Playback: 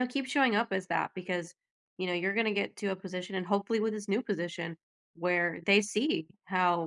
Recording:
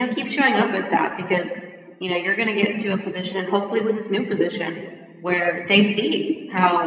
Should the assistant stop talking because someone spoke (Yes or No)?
No